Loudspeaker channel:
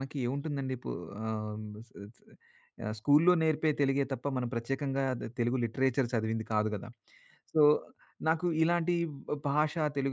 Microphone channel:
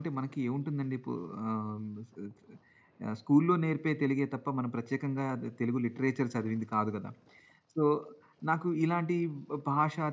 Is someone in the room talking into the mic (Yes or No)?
No